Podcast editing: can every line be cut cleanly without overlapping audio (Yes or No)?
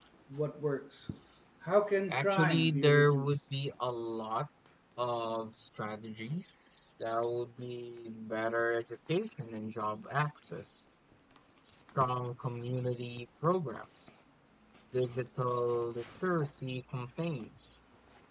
No